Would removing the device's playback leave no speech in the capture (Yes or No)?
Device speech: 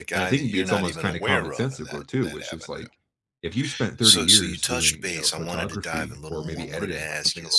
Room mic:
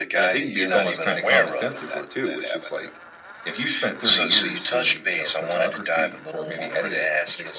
Yes